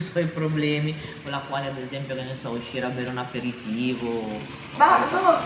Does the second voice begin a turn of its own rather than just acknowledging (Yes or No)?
Yes